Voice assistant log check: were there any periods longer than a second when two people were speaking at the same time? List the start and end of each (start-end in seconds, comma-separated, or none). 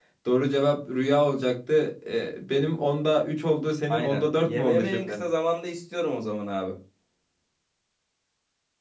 3.9-5.2